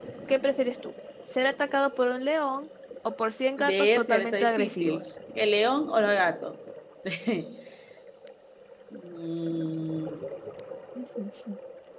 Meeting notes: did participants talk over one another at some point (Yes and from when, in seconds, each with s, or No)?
Yes, from 3.6 s